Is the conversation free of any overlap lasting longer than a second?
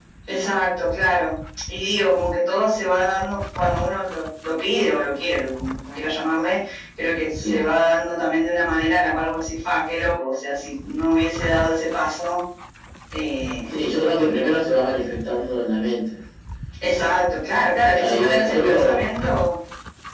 No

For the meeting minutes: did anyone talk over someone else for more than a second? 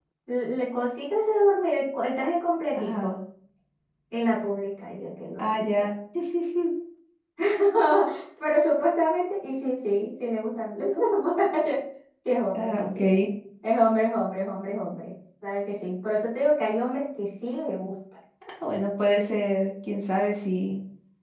No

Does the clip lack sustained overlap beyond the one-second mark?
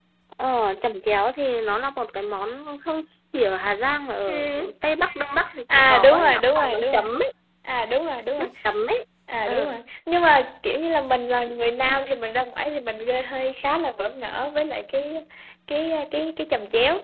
No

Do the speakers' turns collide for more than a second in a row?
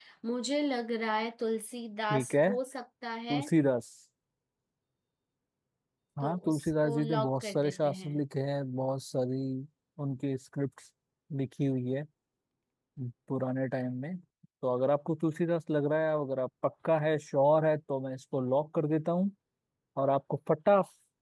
Yes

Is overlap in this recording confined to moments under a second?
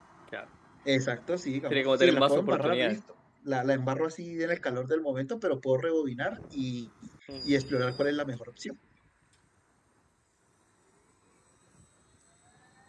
No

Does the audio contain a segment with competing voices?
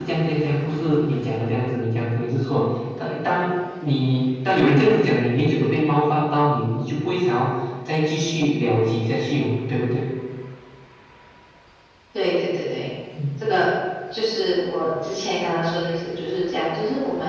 No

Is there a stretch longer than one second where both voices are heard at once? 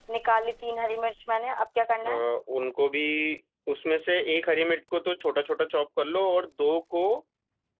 No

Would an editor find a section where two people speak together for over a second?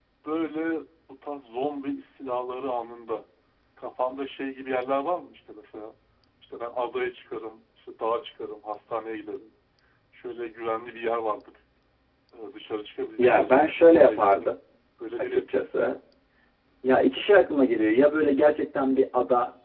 Yes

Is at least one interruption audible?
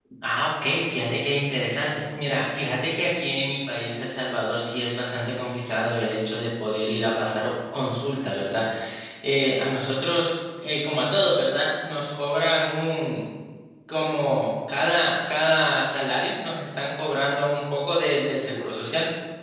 No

